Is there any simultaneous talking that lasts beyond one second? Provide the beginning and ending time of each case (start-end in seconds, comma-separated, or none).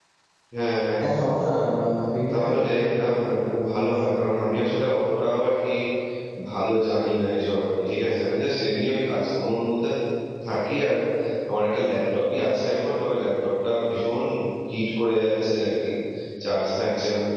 2.3-4.7